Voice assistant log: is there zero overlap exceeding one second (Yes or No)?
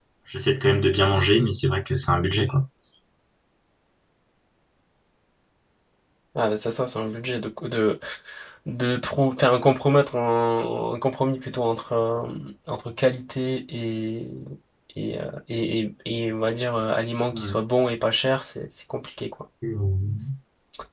Yes